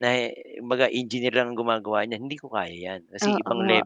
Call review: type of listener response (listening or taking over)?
taking over